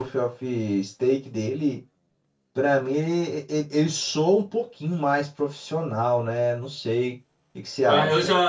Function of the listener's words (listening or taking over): taking over